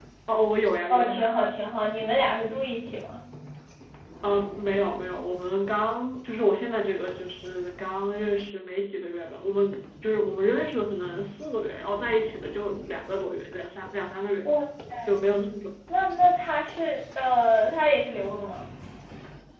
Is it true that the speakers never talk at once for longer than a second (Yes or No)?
Yes